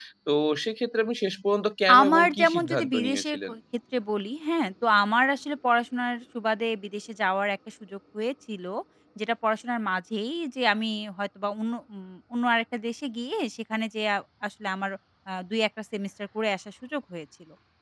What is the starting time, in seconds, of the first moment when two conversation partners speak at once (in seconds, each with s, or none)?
1.9 s